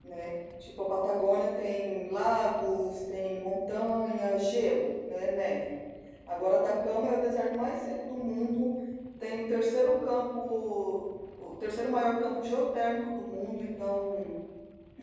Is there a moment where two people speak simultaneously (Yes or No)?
No